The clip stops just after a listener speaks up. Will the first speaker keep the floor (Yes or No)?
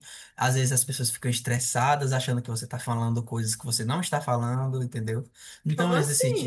Yes